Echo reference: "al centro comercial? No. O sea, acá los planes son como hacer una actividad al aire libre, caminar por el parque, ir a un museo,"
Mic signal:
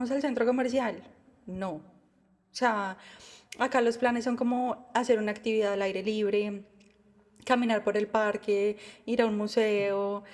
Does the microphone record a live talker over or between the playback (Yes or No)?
No